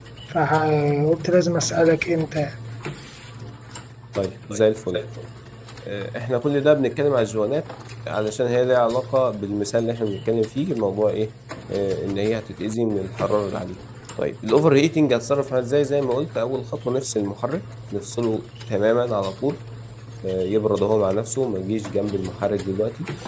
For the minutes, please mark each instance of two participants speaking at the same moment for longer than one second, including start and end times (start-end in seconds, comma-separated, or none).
none